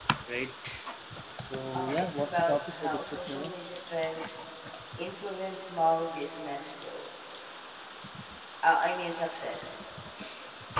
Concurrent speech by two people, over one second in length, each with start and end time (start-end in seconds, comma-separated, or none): 1.7-3.5